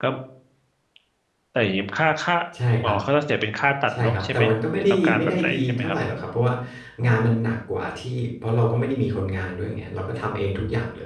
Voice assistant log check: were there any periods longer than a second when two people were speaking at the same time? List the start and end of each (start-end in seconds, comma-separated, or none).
4.0-6.0